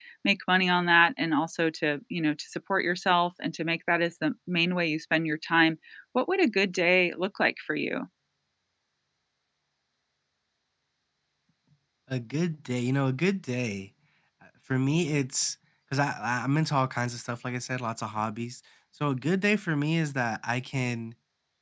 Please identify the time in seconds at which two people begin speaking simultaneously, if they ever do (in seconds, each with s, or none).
none